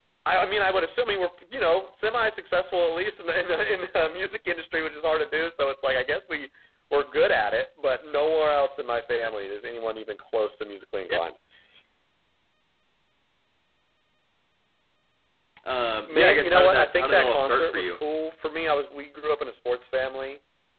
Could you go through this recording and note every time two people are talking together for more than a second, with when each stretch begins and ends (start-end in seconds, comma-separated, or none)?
16.1-18.0